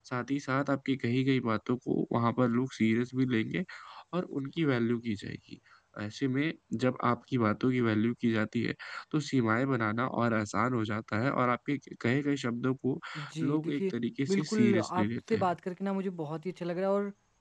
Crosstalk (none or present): present